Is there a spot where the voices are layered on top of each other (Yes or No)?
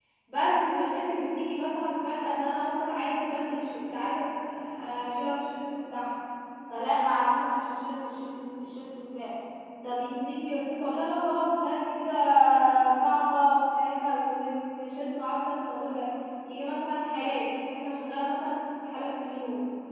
No